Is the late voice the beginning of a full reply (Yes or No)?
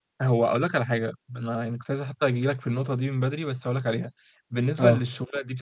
No